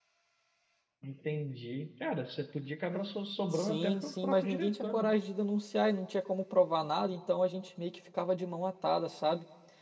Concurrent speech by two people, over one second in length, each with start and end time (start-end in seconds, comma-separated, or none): 3.5-5.1